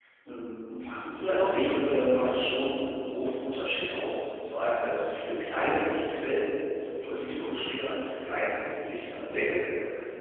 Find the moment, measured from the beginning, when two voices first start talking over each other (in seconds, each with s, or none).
1.2 s